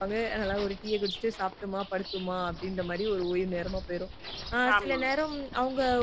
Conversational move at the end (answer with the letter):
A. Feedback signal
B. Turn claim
A